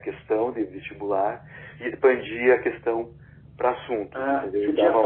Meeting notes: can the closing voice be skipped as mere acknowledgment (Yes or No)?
No